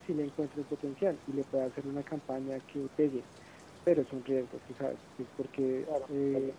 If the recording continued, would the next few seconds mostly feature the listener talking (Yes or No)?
Yes